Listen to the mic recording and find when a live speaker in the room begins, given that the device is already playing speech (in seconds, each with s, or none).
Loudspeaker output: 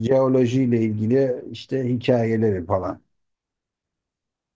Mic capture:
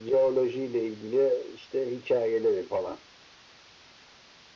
none